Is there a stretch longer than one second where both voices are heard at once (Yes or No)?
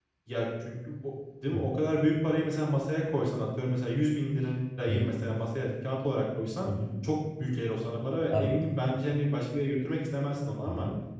No